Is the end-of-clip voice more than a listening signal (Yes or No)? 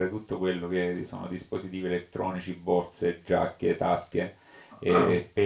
No